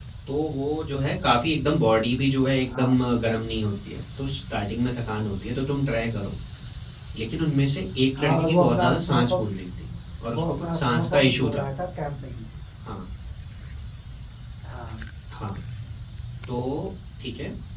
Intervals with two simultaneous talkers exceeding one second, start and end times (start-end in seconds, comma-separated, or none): 8.2-9.5, 10.4-11.7